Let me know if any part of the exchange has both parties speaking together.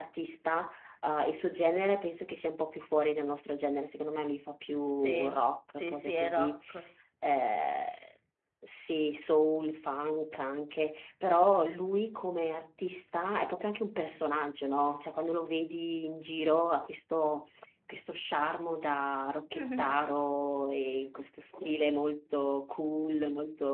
Yes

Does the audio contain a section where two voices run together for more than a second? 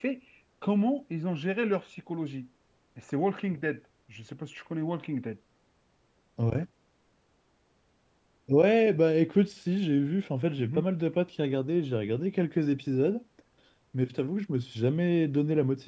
No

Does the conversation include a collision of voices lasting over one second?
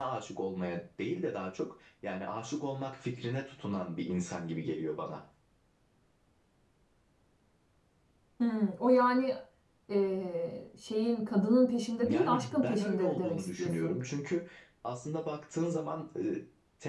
Yes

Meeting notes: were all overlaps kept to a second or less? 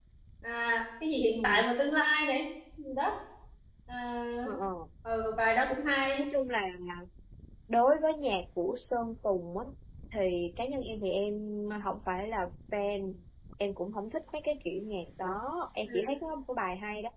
Yes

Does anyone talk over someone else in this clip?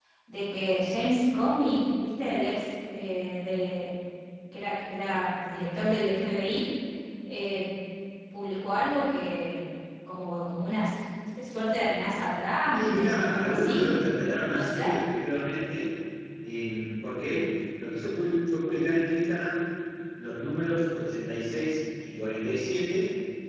Yes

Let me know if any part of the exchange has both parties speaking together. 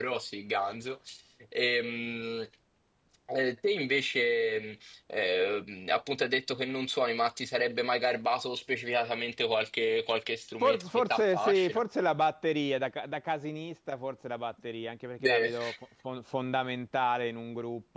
Yes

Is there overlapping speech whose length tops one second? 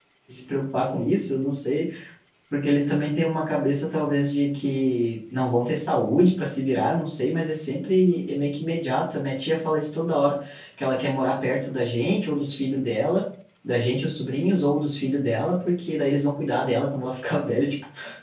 No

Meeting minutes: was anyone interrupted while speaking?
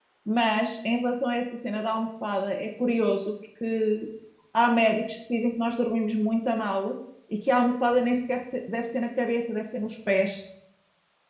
No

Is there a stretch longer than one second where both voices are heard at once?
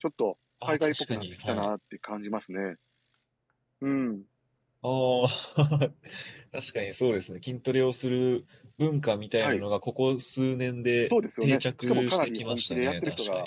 Yes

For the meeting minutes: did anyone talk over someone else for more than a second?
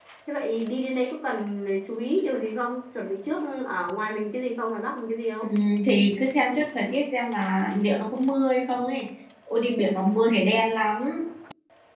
No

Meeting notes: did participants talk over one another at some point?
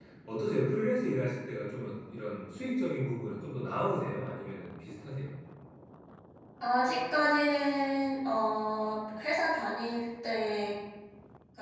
No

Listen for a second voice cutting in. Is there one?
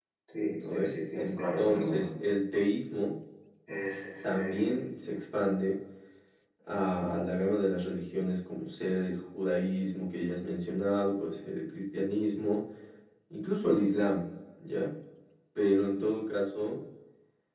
Yes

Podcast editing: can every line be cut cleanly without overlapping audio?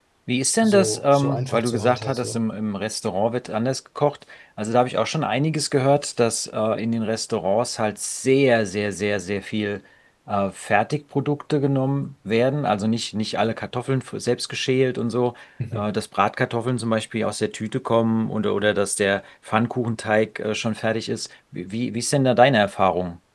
No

